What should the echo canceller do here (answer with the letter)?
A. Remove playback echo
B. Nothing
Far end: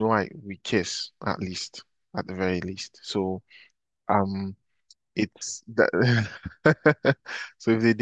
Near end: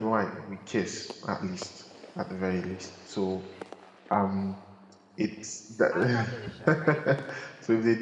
A